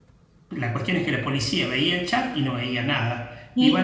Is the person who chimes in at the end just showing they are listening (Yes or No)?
Yes